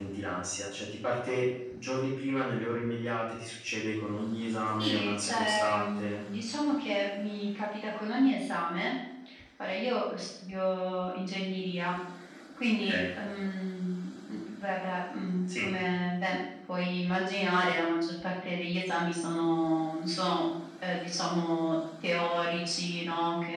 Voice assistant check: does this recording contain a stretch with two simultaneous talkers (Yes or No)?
Yes